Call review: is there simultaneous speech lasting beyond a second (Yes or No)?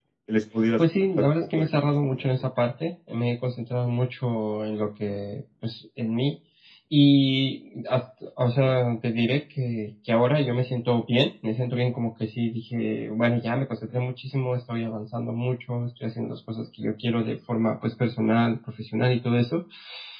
Yes